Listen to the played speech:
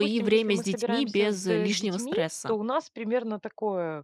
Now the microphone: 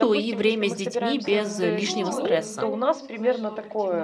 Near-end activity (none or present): present